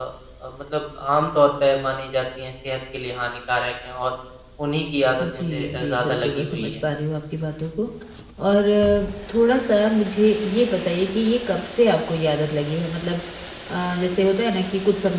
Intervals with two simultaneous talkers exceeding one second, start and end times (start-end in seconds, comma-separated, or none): 5.2-6.7